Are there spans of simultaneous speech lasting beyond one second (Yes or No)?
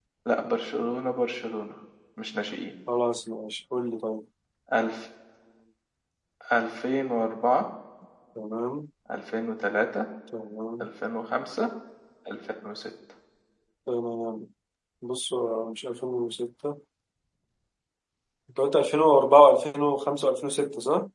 No